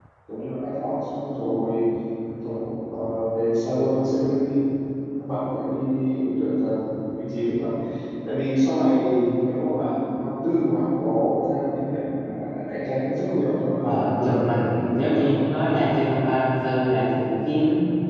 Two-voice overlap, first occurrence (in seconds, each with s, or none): 13.8 s